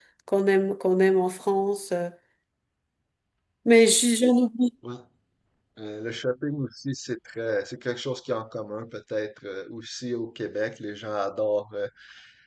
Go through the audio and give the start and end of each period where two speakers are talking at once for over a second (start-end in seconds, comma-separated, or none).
none